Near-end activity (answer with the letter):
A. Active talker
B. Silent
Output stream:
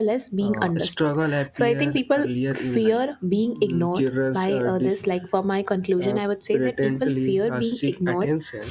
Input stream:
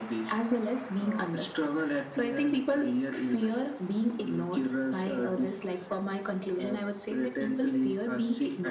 B